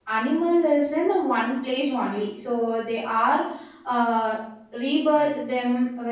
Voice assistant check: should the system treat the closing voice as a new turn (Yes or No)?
No